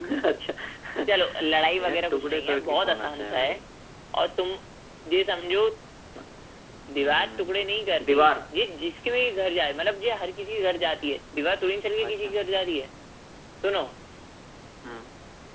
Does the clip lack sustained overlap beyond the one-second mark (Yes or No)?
No